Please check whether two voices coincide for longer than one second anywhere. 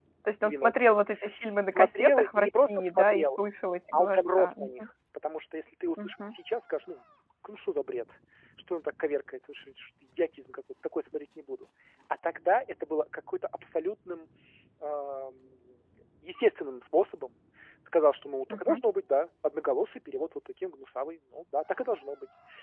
Yes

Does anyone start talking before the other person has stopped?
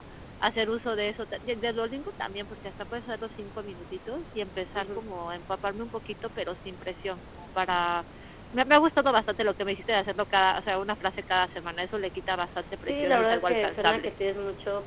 Yes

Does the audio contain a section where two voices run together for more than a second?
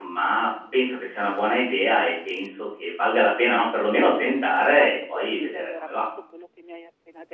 Yes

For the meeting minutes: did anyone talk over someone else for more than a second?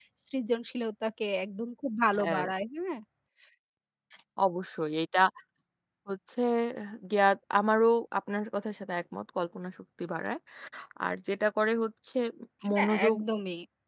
No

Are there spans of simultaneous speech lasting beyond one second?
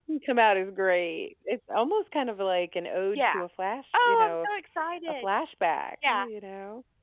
No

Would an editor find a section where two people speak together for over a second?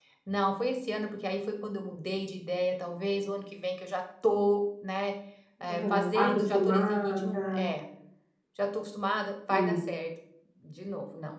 Yes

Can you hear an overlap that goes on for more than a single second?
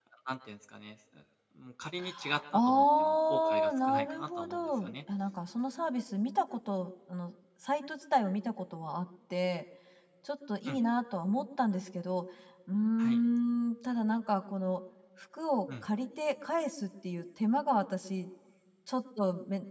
Yes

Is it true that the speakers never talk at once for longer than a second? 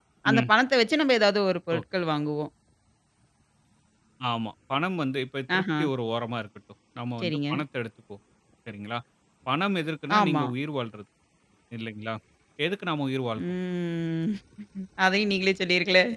Yes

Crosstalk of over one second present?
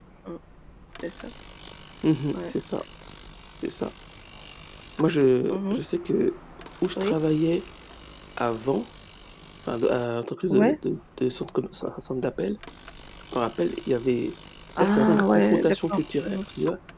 Yes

